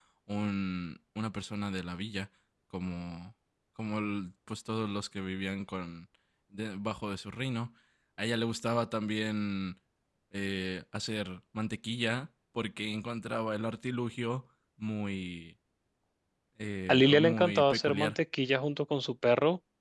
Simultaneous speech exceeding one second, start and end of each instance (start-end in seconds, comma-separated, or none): 16.9-18.1